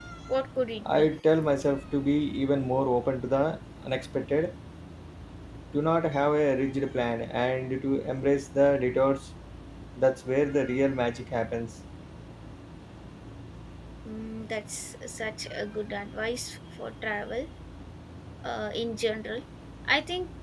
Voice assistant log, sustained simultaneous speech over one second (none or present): none